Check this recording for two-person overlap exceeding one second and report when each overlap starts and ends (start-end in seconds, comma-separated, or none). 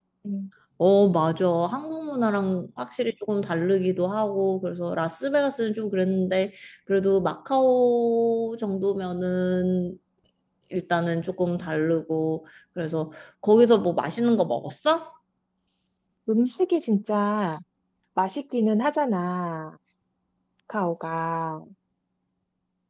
none